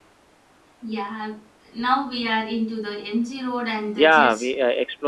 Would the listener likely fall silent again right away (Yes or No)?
No